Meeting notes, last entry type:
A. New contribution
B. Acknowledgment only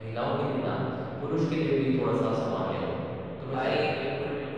A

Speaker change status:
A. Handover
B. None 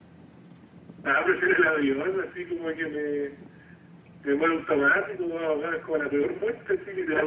A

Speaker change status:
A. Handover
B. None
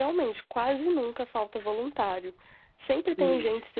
B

